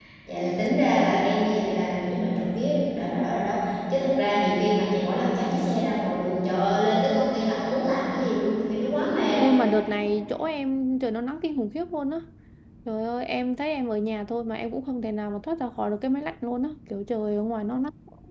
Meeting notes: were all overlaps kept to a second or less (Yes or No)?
Yes